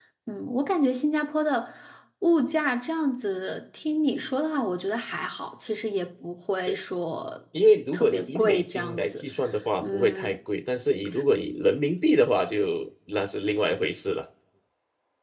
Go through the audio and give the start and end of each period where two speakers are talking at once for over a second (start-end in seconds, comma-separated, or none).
7.9-9.2